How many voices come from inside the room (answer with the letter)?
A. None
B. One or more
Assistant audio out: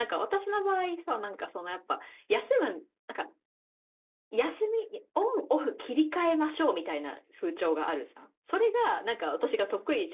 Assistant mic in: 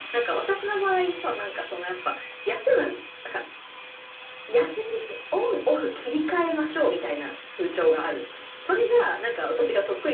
A